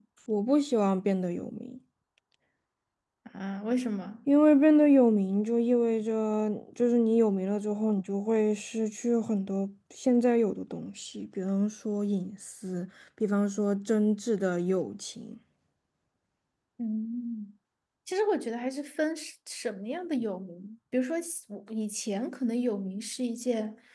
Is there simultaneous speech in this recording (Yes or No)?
No